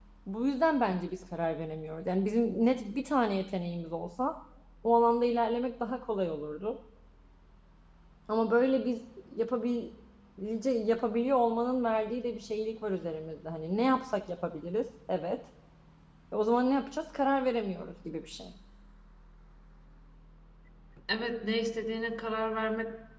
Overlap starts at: none

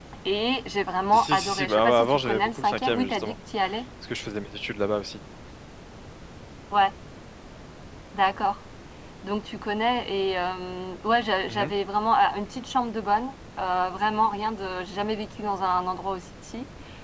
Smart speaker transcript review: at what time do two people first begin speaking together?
1 s

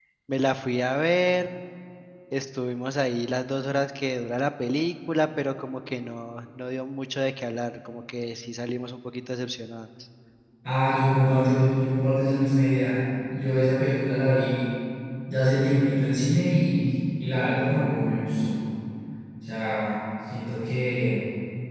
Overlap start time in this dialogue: none

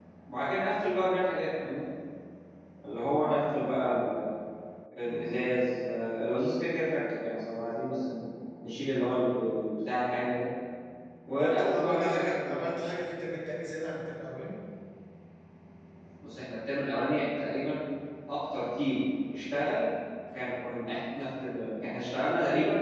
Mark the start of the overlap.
11 s

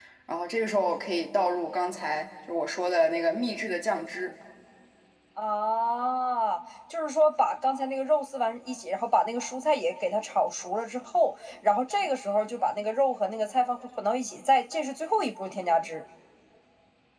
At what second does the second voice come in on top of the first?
none

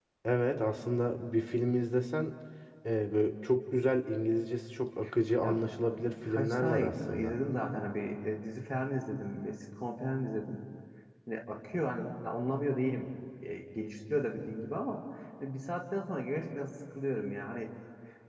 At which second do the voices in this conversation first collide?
5 s

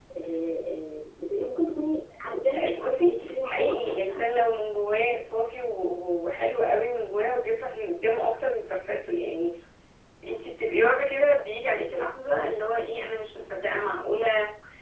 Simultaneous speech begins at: 3 s

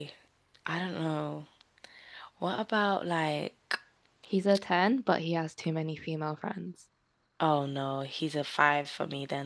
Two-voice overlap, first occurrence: none

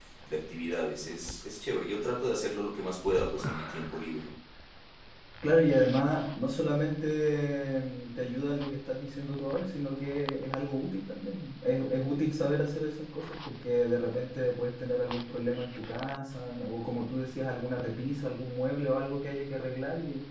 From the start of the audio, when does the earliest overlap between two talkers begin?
none

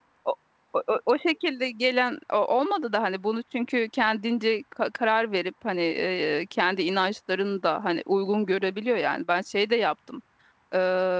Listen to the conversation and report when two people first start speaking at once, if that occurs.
none

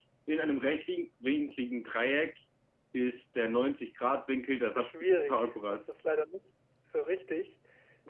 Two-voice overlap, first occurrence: 5 s

